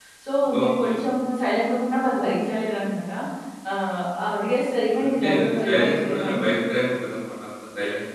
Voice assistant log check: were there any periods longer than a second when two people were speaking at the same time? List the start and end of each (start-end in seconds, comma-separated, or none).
5.0-6.5